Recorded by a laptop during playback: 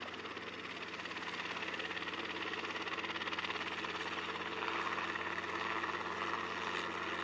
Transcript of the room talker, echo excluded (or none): none